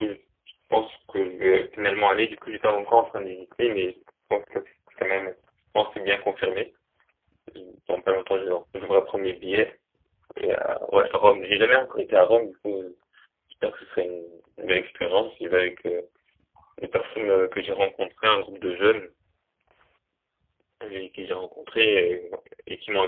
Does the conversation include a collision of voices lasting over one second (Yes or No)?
No